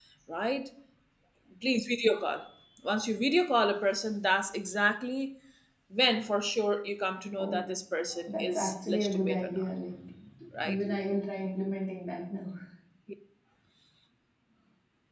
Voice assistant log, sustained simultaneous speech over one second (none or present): present